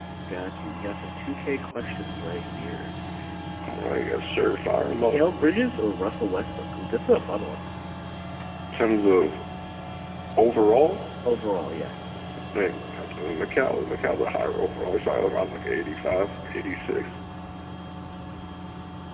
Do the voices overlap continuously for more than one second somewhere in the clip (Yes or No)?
No